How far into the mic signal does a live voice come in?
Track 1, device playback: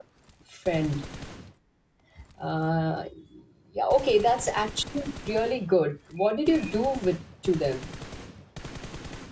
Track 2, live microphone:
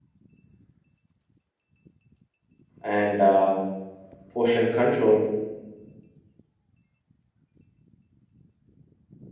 2.8 s

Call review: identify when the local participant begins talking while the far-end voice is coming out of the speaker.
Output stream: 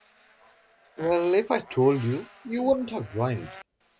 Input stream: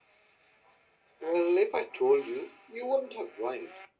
none

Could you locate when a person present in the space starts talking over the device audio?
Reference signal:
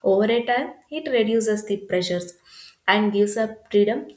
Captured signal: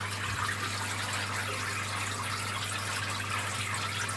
none

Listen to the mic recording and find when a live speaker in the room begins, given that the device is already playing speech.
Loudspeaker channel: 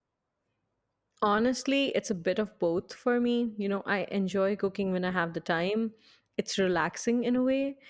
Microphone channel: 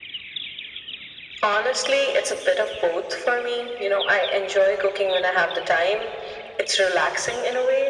none

